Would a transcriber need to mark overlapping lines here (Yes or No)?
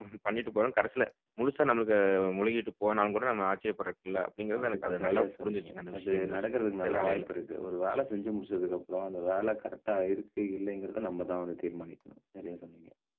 Yes